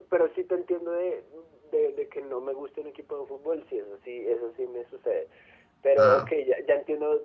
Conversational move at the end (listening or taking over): listening